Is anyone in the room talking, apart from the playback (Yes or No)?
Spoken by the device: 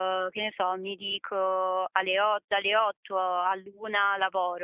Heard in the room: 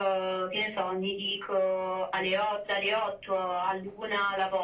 No